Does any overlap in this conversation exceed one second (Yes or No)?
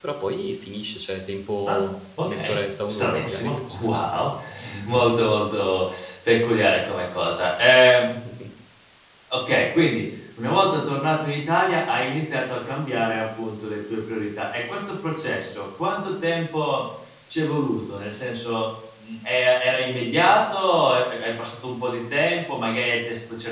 Yes